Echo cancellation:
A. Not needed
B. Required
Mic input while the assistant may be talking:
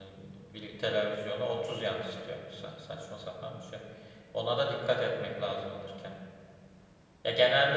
A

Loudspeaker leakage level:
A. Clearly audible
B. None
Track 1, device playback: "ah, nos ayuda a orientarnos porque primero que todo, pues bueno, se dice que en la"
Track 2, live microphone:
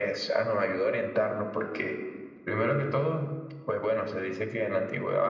A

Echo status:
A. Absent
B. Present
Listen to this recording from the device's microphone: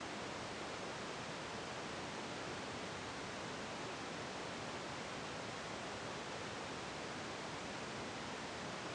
A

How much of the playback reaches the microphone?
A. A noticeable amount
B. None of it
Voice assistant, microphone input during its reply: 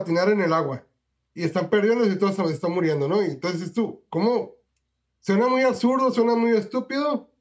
A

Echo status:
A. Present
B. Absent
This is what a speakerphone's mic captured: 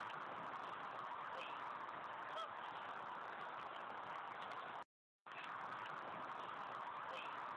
B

